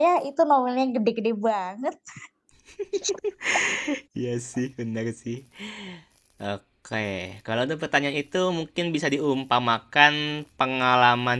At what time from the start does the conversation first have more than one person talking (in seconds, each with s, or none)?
none